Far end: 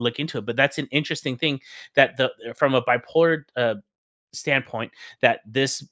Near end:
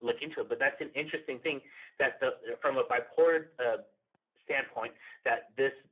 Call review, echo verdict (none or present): present